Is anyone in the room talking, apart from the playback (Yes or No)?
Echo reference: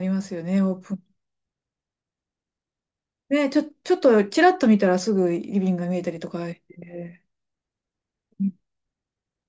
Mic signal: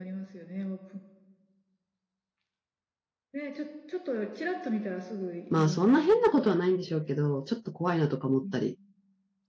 Yes